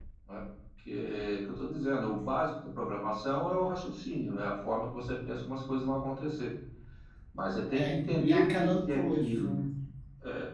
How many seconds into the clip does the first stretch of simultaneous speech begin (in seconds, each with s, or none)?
7.8 s